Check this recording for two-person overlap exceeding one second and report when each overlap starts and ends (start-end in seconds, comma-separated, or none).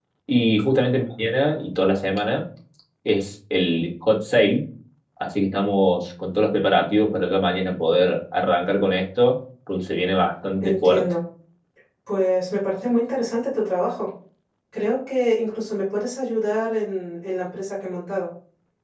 none